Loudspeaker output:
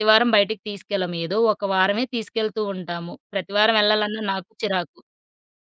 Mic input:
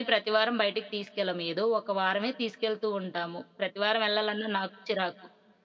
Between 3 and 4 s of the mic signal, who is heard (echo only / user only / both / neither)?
echo only